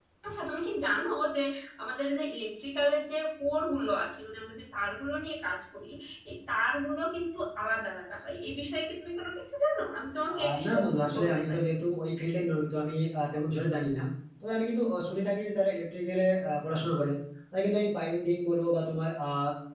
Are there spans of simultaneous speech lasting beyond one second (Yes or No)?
Yes